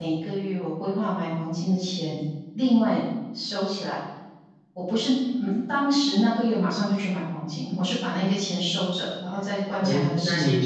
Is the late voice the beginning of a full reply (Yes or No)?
Yes